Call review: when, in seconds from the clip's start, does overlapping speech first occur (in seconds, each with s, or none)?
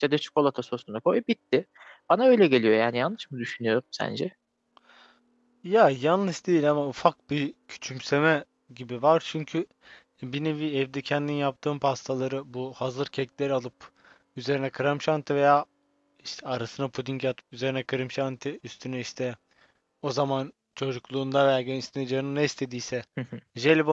none